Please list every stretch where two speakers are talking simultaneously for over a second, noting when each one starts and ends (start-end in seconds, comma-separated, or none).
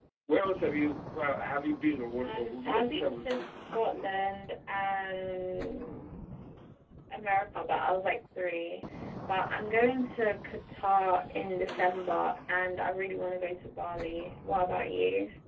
2.2-3.4